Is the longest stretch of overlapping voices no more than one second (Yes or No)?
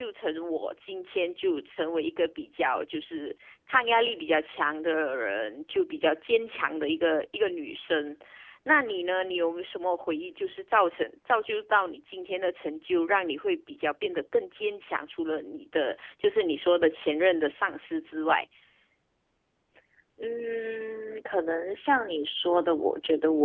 Yes